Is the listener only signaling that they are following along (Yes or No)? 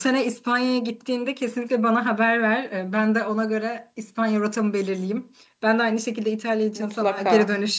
Yes